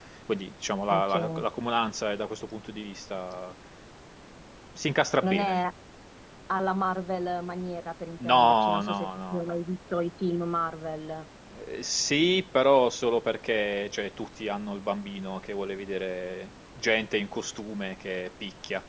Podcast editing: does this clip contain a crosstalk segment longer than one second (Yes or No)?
Yes